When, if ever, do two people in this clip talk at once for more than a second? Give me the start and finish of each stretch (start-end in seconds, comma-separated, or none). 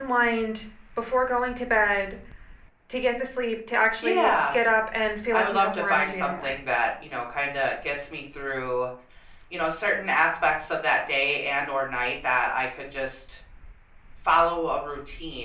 5.3-6.6